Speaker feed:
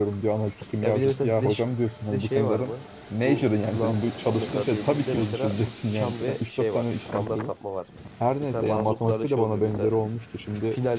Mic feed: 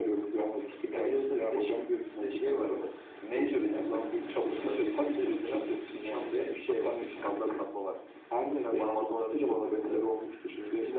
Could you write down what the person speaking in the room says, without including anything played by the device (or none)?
none